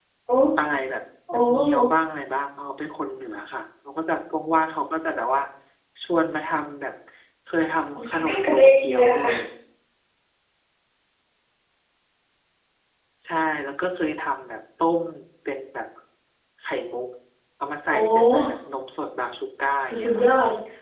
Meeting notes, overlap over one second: present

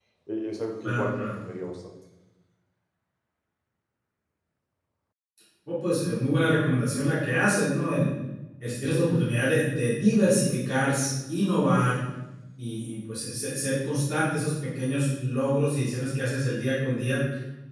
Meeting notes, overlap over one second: none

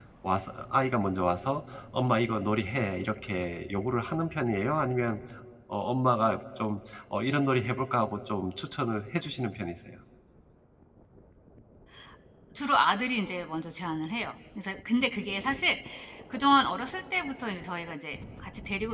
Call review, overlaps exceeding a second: none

